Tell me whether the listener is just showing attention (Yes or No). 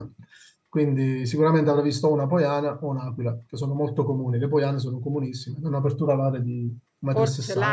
No